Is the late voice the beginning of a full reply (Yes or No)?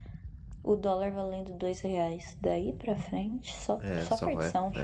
Yes